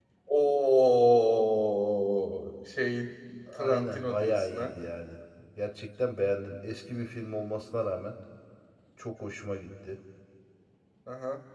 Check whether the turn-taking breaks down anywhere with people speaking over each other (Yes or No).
Yes